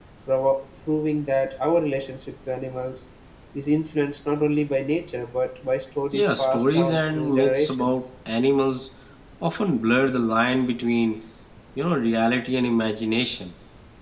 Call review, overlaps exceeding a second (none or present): present